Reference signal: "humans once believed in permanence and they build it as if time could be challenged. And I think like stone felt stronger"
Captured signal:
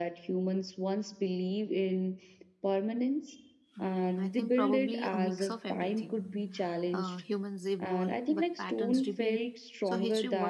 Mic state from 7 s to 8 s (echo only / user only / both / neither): both